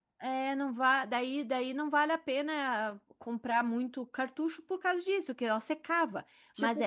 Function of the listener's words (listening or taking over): taking over